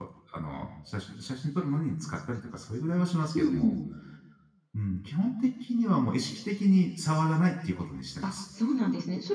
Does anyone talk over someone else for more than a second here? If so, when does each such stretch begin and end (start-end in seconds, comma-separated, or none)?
none